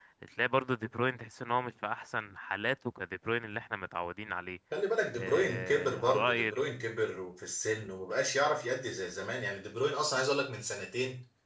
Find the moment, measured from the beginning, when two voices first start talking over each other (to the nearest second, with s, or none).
5 s